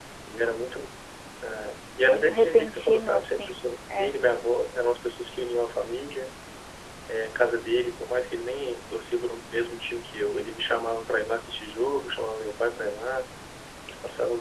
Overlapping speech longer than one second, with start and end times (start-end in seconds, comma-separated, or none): 2.0-3.5